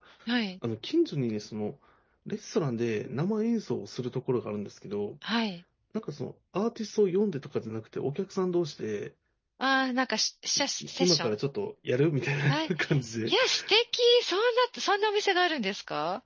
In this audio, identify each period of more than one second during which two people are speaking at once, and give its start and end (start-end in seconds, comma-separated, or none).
none